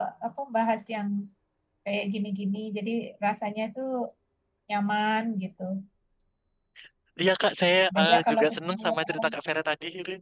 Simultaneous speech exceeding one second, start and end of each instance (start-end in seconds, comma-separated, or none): 7.9-9.3